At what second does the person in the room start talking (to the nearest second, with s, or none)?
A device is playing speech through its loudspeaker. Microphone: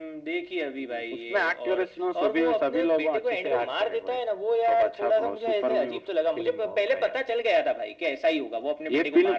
none